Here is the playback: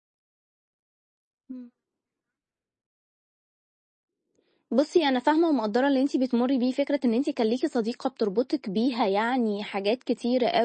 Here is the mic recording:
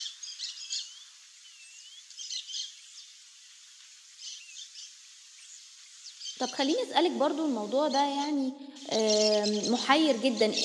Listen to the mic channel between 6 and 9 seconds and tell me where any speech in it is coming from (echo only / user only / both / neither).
user only